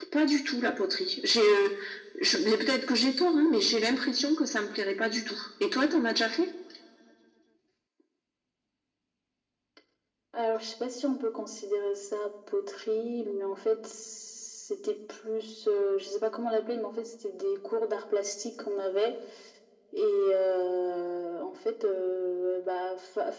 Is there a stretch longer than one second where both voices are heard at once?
No

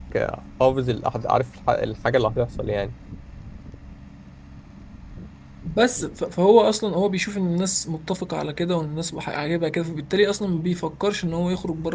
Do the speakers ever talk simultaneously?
No

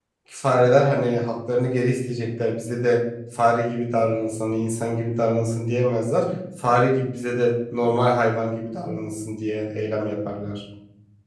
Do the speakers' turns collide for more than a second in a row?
No

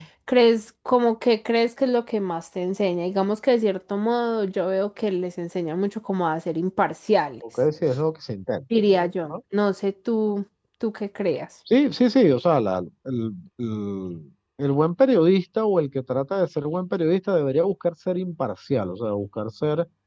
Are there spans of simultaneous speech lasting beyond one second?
No

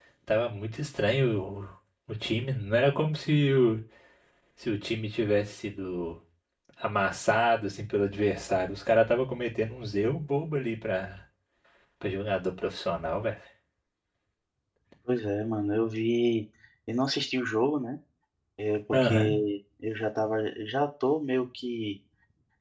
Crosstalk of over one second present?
No

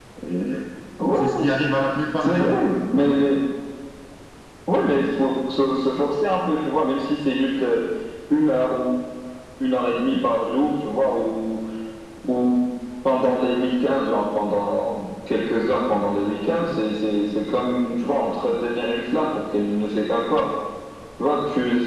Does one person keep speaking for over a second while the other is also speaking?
No

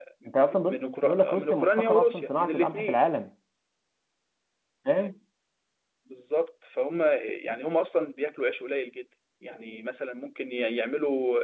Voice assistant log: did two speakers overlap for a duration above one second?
Yes, from 0.6 s

